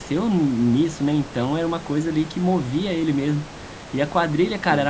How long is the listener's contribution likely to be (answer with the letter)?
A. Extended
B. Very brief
B